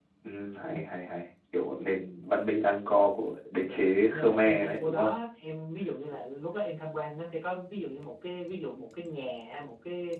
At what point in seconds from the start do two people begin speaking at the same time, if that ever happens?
4 s

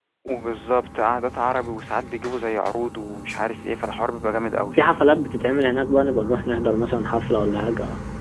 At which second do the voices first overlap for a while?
none

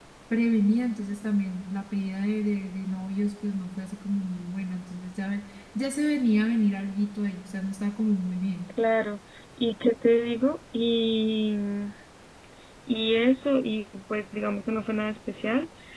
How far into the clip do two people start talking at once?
none

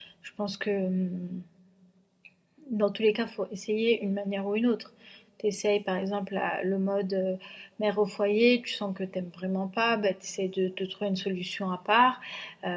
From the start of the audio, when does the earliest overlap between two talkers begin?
none

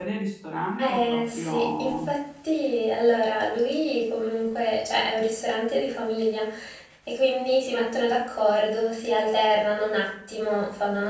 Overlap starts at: 1 s

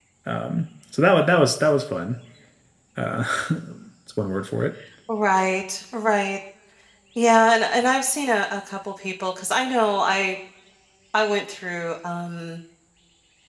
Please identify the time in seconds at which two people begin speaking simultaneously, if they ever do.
none

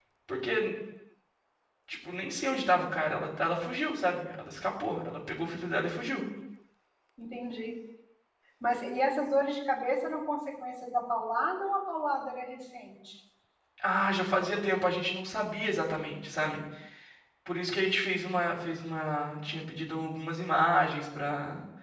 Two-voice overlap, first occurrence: none

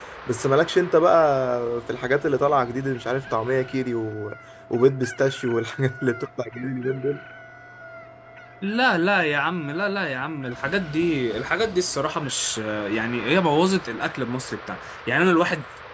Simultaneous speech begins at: none

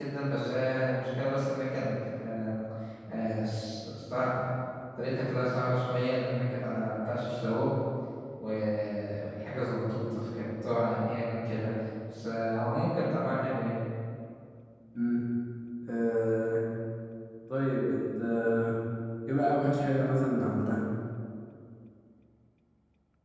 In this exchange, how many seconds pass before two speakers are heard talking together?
none

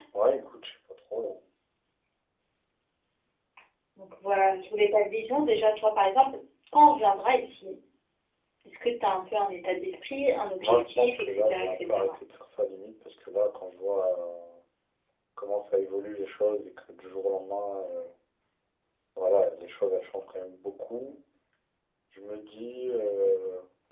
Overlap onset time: 11 s

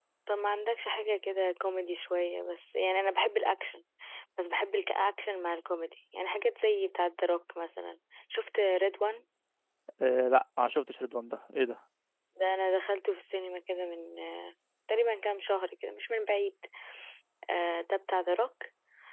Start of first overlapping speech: none

